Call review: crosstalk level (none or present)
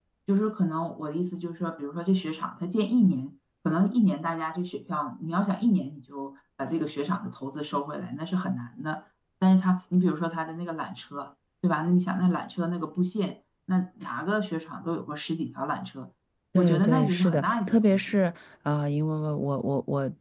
present